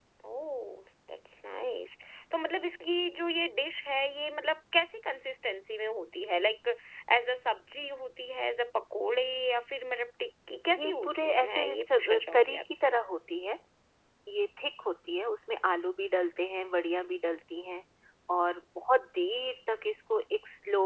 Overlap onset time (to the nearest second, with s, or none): 11 s